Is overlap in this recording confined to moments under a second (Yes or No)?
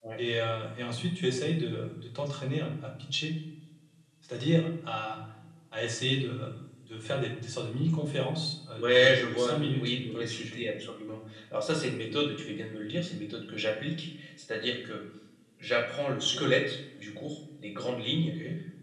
No